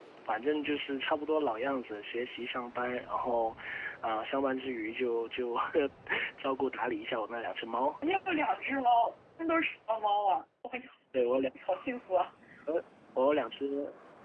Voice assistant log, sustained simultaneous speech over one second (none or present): none